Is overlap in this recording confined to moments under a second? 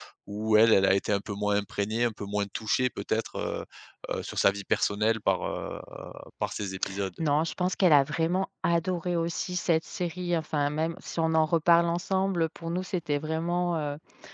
Yes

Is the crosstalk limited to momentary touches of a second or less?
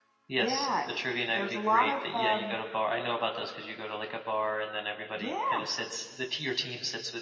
No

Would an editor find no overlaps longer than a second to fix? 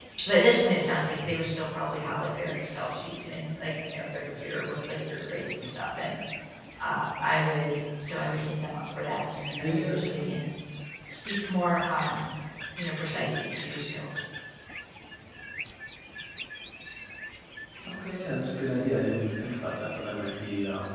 Yes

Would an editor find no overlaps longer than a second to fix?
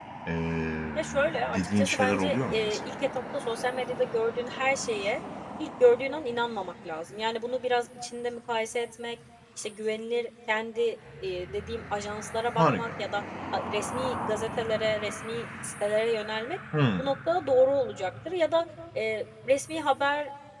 No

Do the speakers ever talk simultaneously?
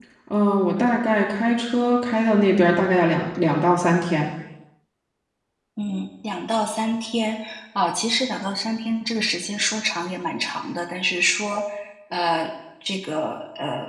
No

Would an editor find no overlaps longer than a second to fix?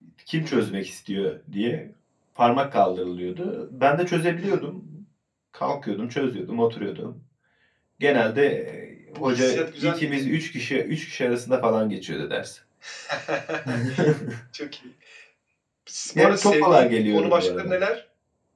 No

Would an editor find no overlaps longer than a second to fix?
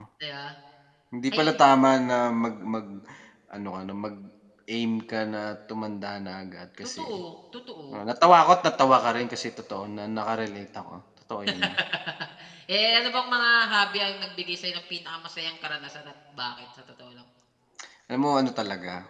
Yes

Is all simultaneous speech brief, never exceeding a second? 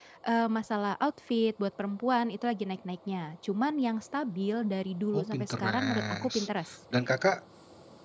No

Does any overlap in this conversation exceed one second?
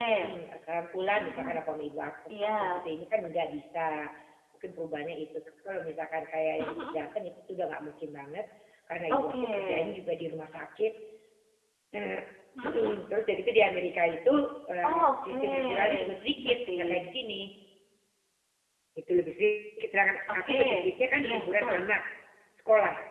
Yes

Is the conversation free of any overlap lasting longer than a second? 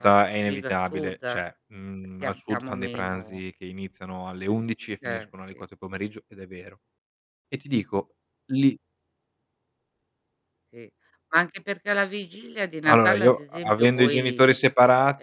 No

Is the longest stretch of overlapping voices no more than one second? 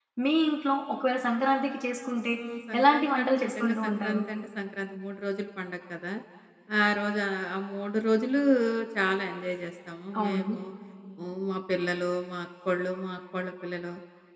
No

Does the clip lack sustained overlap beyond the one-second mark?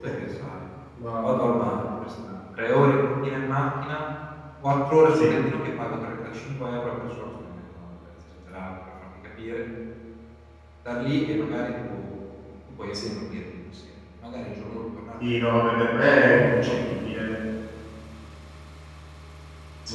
No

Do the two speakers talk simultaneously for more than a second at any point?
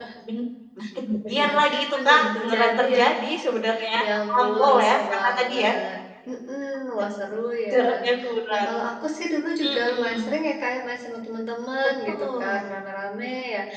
Yes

